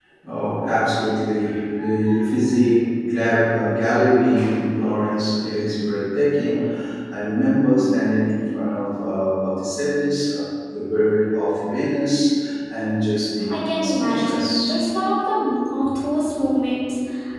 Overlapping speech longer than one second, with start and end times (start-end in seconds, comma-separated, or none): 13.5-14.8